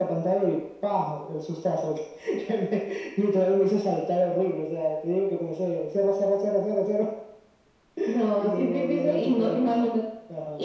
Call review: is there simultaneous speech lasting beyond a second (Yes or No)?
Yes